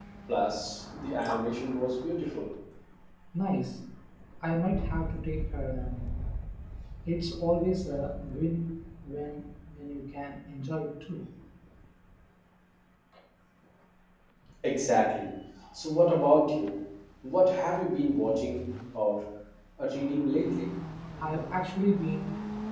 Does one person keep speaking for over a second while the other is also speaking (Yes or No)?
No